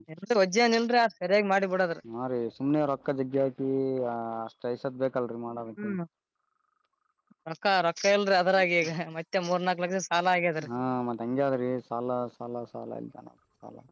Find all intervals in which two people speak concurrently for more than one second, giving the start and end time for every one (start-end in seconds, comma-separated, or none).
none